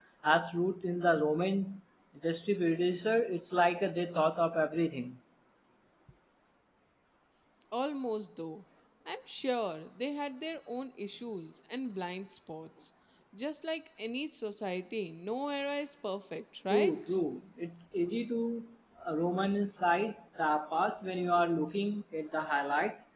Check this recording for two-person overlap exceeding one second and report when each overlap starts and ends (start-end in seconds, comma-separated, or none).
none